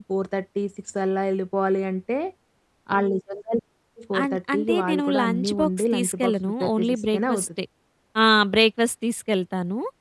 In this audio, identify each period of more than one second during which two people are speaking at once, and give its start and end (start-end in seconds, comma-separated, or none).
4.2-7.6